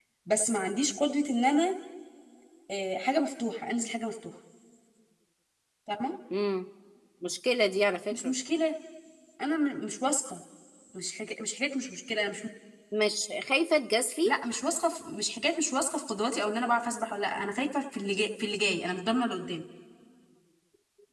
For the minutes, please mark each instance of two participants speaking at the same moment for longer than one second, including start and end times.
none

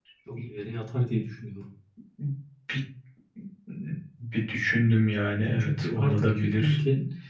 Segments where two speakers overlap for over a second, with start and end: 5.4-6.8

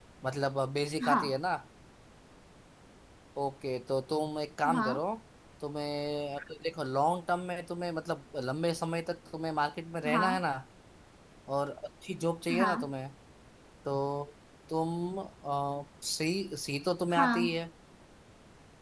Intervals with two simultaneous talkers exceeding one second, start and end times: none

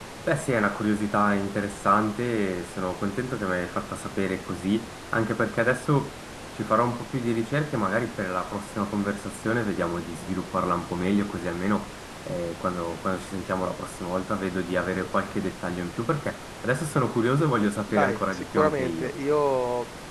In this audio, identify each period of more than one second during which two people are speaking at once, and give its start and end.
17.9-19.1

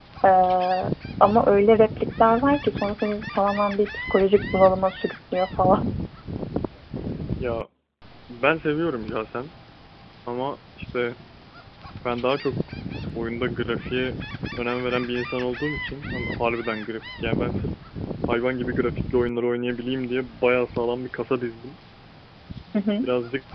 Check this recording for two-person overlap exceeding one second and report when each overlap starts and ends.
none

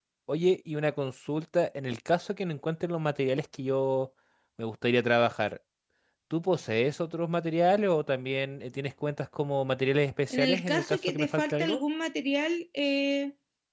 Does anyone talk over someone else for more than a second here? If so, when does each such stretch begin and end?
10.3-11.8

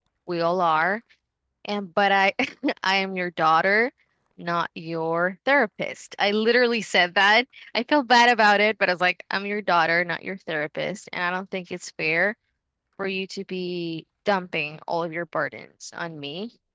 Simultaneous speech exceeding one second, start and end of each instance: none

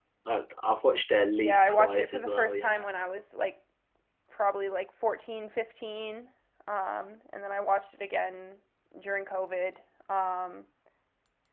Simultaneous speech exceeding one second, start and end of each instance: 1.4-2.8

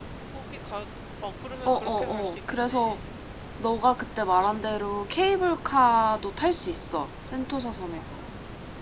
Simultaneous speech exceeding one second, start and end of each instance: 1.6-3.0

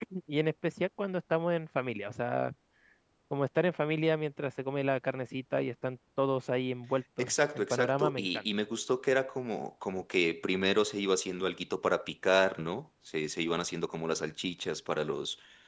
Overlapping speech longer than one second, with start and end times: 7.2-8.4

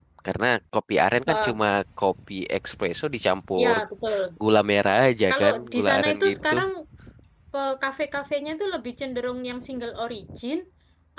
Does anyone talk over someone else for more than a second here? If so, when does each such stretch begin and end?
5.3-6.5

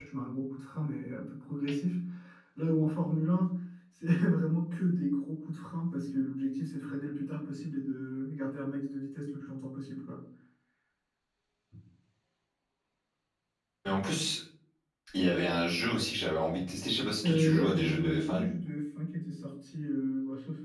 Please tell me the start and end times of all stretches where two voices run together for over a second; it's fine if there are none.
17.2-18.5

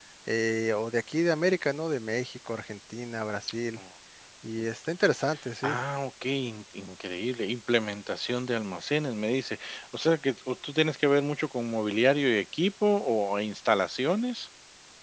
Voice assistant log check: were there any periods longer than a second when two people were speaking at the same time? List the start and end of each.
none

